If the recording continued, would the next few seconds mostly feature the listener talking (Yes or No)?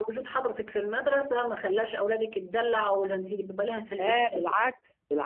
Yes